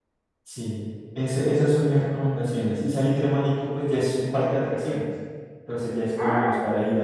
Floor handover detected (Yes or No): No